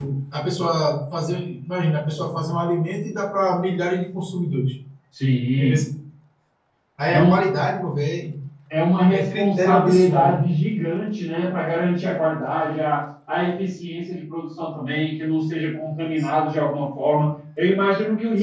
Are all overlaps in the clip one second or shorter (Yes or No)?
No